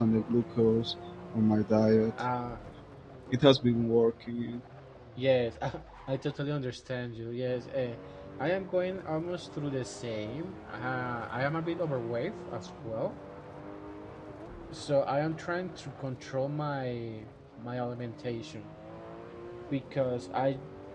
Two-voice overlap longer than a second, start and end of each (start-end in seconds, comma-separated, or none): none